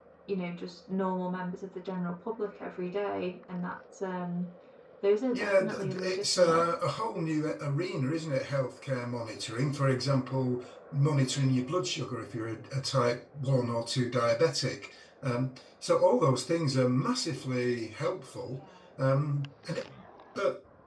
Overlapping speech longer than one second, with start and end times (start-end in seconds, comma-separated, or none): 5.3-6.6